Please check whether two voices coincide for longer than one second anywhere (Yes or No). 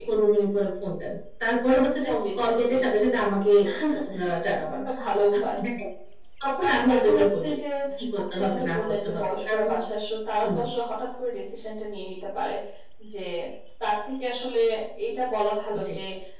Yes